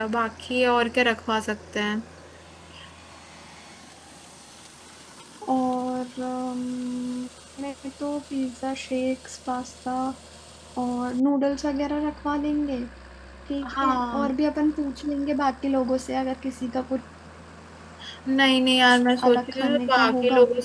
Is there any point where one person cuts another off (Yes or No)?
Yes